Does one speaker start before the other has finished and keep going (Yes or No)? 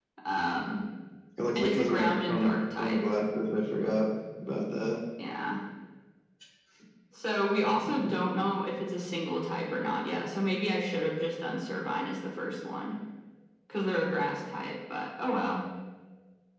Yes